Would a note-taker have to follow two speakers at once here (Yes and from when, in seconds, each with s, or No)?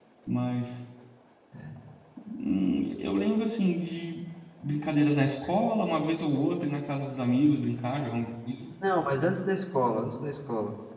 No